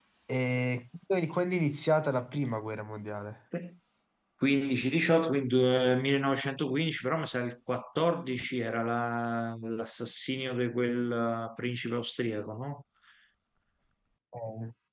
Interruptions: none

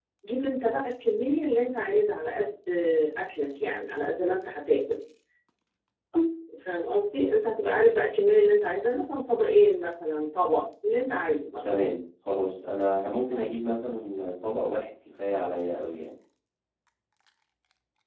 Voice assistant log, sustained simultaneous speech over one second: none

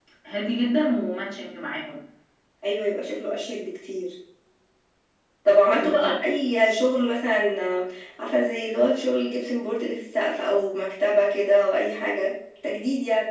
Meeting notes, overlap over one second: none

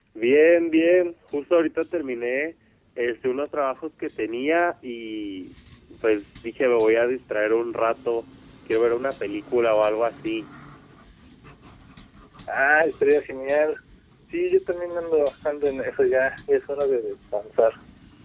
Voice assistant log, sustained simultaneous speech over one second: none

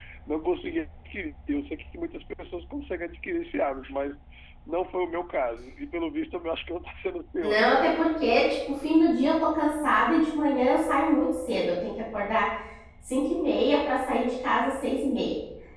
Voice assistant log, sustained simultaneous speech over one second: none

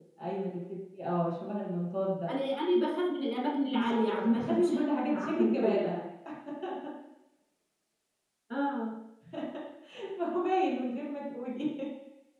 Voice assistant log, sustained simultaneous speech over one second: present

